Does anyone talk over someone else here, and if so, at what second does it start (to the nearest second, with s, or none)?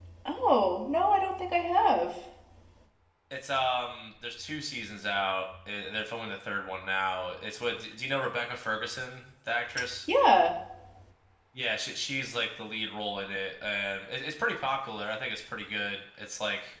none